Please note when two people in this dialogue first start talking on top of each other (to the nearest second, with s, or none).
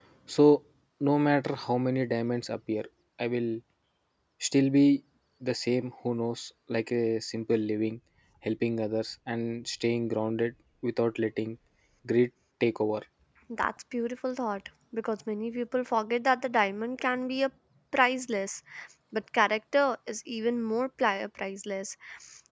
none